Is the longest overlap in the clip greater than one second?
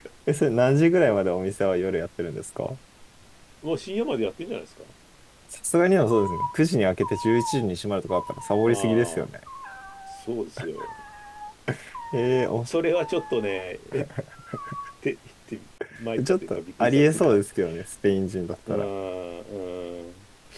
Yes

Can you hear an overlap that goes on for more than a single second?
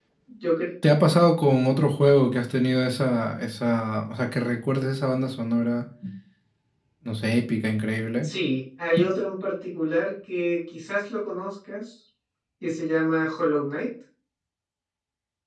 No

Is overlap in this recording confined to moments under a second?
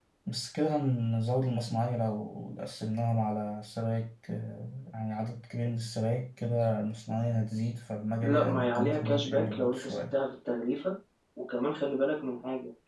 No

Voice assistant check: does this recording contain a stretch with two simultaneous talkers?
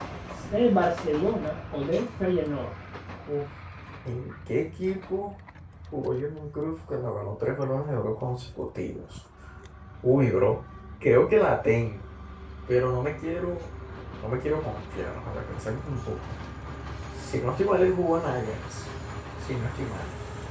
No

